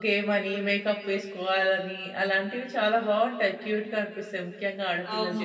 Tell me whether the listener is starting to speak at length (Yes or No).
Yes